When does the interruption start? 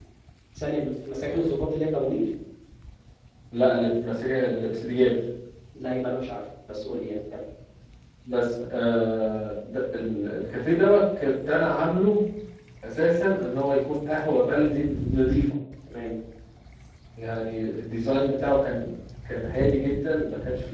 none

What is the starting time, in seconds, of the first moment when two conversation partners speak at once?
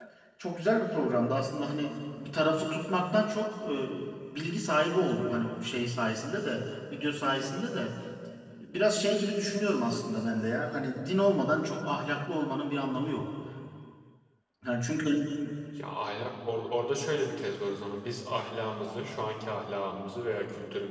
none

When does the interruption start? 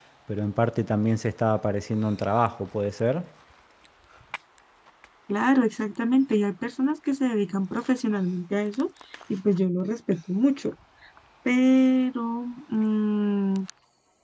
none

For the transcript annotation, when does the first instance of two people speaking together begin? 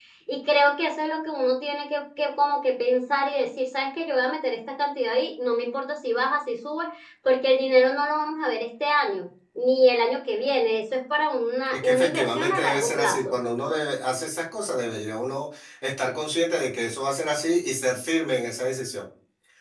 11.7 s

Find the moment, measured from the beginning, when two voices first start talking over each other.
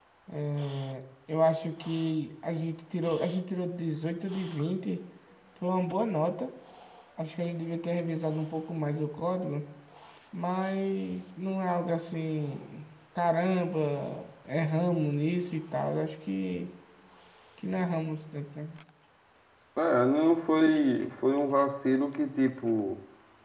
none

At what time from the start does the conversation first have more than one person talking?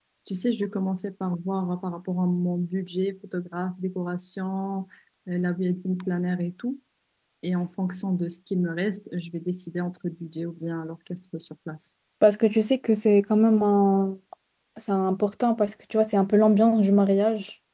none

